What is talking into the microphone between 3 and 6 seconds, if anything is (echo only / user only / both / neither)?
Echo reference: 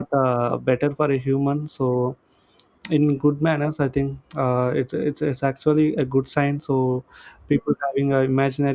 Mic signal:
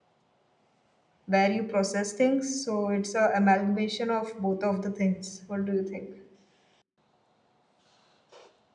user only